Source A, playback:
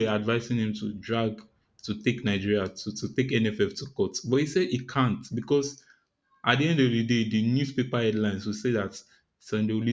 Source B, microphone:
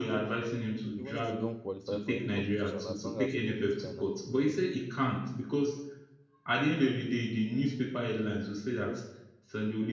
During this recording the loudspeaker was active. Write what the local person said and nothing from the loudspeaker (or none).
even if we don't qualify for any competition, as long as we beat Ghana, you know,